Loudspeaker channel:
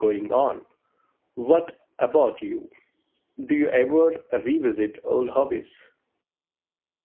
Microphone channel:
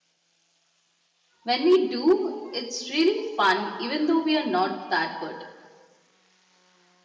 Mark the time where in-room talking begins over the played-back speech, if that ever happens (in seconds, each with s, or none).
1.4 s